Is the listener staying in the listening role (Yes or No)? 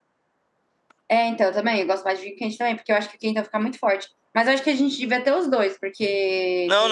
No